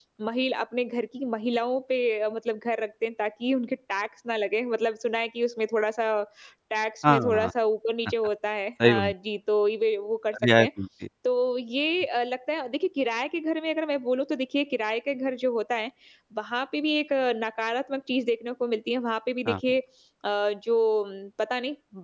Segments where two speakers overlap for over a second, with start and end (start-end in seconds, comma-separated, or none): none